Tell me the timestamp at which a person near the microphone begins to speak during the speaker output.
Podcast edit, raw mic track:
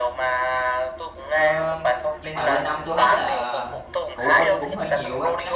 1.2 s

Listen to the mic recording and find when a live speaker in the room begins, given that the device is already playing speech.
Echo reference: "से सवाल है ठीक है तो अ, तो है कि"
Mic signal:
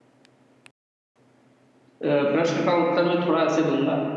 2.0 s

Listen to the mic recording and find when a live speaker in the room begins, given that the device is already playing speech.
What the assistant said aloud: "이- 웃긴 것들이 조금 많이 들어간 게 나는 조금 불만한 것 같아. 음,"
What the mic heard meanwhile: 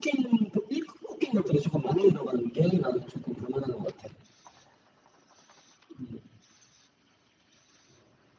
none

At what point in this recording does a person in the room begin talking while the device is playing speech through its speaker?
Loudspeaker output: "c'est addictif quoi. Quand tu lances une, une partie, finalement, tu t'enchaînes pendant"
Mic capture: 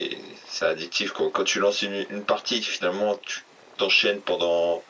none

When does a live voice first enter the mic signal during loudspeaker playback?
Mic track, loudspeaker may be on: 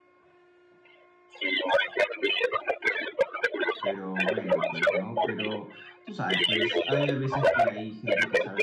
3.8 s

